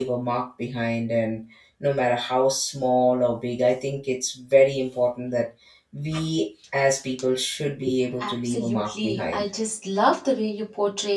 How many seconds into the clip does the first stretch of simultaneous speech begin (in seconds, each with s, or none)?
8.2 s